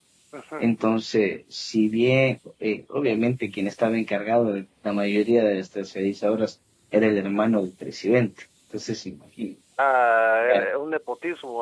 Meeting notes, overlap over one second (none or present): none